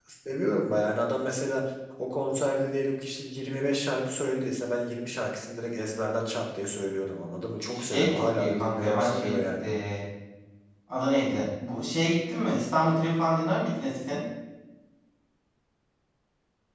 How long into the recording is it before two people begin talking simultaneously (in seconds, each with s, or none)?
7.7 s